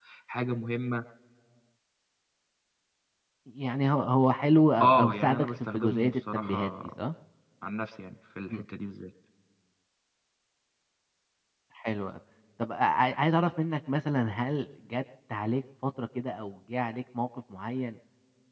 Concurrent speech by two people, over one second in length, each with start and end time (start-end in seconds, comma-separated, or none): 4.8-6.7